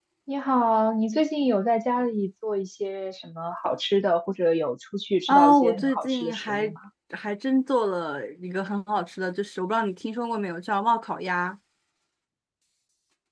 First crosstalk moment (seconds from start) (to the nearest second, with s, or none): 5 s